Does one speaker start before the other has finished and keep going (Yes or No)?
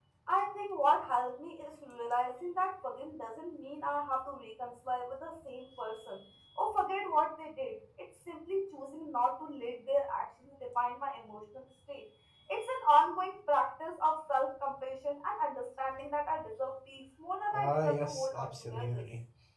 Yes